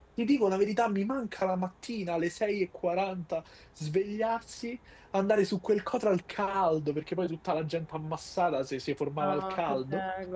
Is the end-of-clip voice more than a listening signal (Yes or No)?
Yes